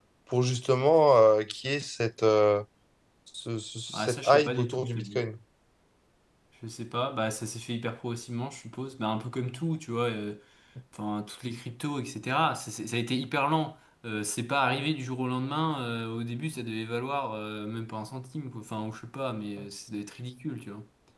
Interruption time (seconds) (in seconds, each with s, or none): 3.9 s